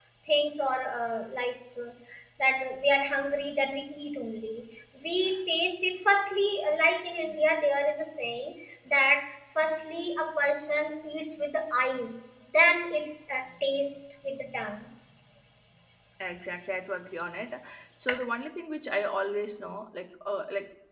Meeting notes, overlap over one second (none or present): none